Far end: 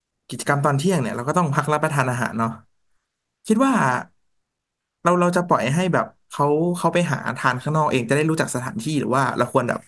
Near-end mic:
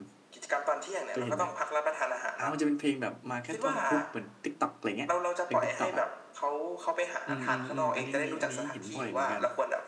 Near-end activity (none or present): present